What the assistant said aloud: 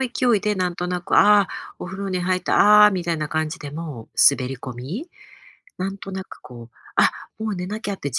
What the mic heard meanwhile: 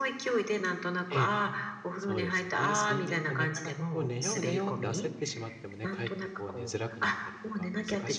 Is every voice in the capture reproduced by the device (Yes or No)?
No